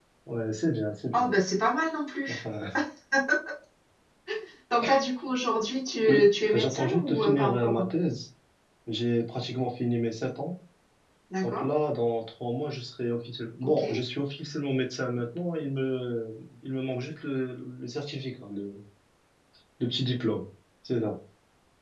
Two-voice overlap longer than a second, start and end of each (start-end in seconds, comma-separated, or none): 6.1-7.8